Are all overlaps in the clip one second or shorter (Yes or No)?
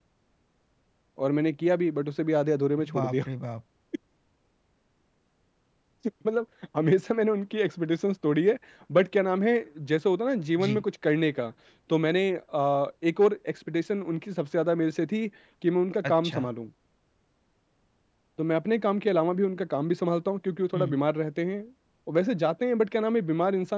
Yes